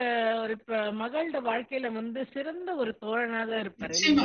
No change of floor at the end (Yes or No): No